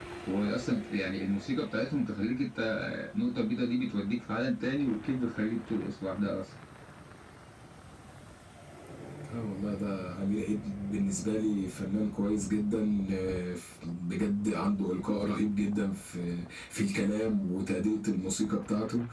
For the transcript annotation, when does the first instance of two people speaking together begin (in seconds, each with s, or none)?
none